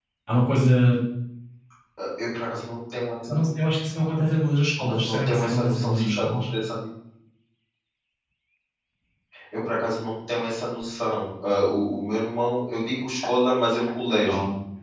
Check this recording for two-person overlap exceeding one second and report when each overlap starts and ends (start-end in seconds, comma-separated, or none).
4.8-6.4